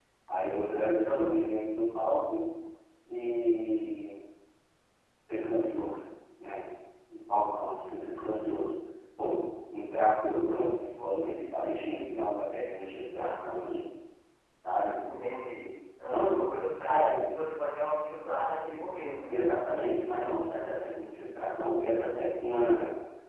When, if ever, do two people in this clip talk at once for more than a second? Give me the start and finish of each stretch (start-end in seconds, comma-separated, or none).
none